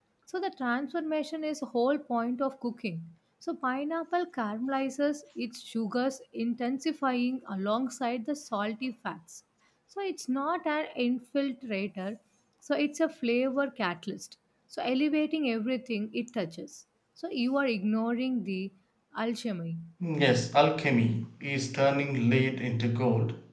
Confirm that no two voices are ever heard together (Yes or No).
Yes